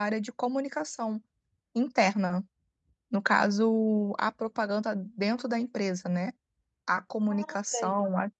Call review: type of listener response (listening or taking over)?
listening